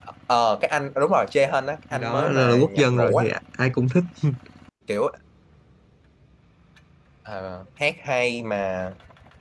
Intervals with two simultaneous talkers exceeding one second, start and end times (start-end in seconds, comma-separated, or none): 1.9-3.2